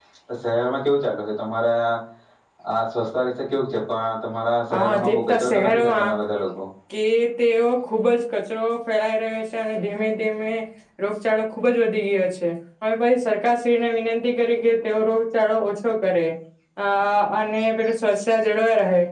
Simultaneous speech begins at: 4.7 s

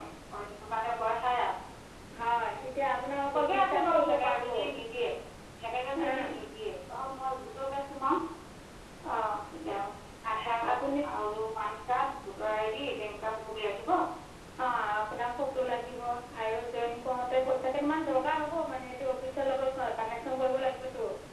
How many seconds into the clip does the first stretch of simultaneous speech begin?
3.3 s

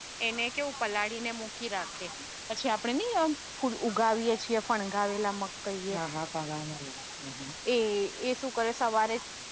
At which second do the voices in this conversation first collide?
none

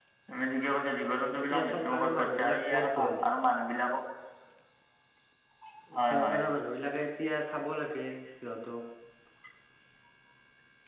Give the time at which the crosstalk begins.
1.4 s

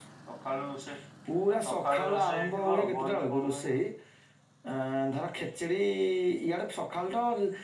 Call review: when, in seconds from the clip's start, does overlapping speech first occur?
1.6 s

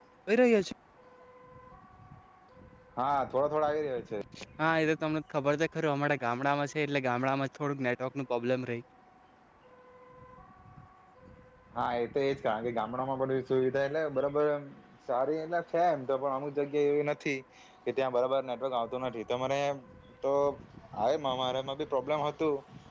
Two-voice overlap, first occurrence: none

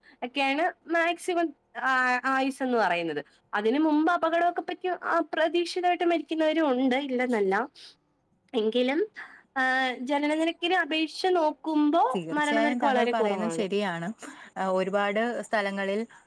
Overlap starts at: 12.1 s

